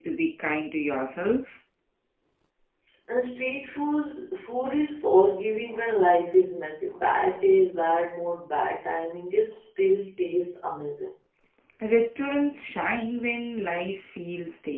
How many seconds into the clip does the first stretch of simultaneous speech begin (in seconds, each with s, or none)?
none